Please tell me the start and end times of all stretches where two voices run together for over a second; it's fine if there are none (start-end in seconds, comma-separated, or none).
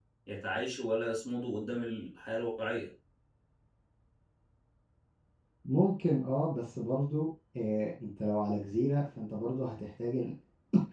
none